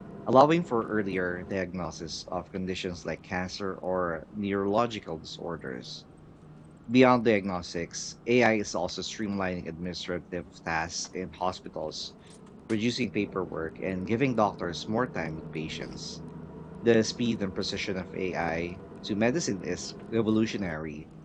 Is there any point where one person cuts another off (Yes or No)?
No